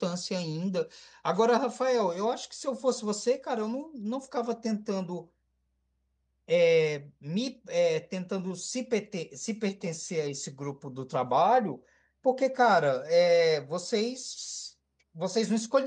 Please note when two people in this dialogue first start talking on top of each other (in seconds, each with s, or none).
none